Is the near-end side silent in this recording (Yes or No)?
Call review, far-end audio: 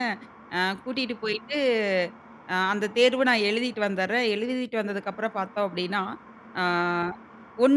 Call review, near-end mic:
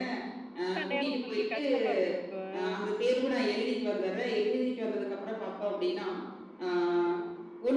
No